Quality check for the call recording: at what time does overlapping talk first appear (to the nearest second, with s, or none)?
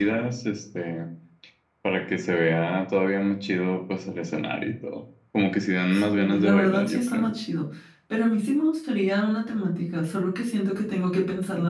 6 s